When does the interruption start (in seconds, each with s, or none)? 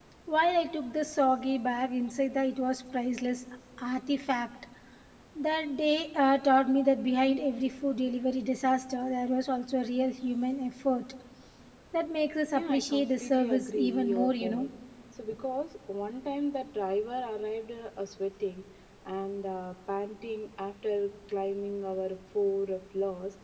12.5 s